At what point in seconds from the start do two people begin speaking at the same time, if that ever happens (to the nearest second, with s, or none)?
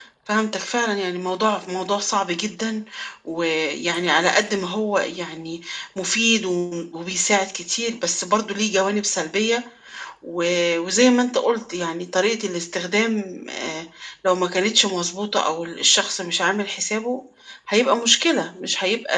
none